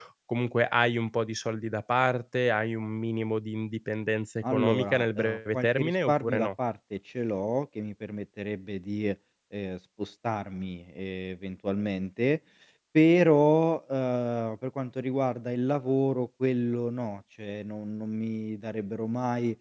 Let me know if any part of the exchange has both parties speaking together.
Yes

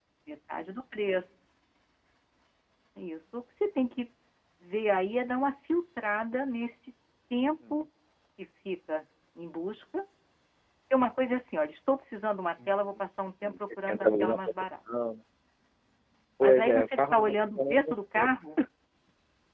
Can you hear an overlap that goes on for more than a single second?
Yes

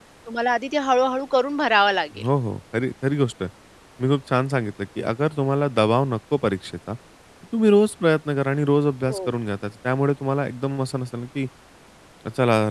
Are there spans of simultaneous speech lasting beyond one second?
No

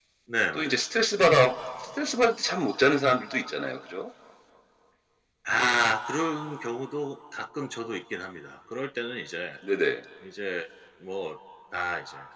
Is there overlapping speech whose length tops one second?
No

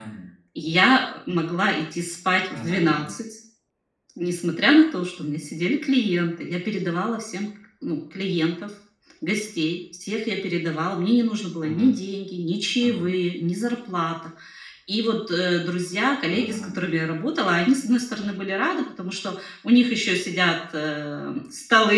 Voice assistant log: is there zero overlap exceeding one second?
Yes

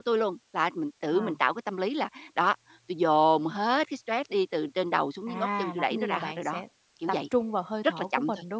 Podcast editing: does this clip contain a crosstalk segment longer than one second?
Yes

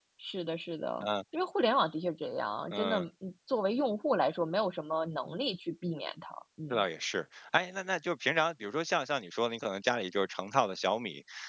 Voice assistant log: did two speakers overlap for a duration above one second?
No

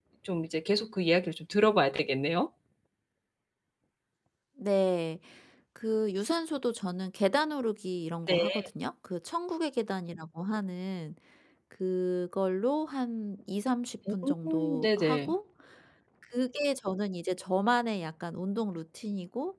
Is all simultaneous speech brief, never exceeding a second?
No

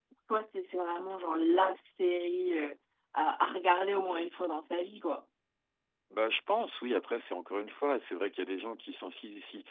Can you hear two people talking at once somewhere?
No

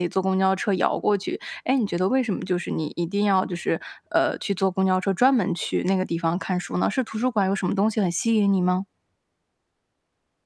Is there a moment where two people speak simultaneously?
No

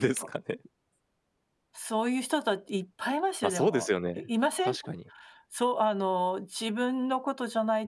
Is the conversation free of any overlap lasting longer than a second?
Yes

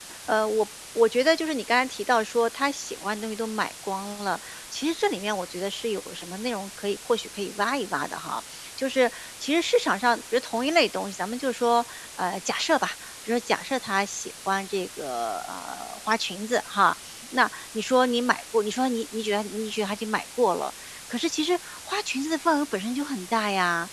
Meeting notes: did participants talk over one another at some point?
No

